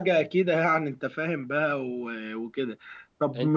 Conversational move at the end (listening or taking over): listening